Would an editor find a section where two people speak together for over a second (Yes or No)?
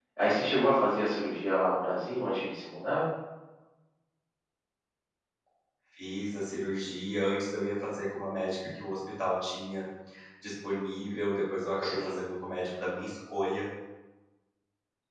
No